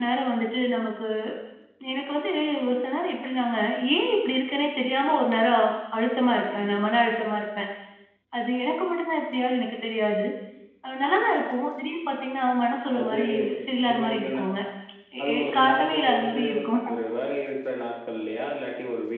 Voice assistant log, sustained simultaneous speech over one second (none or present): present